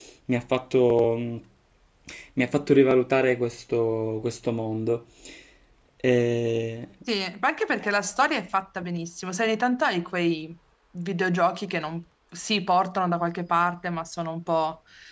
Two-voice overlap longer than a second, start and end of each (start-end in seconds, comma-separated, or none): none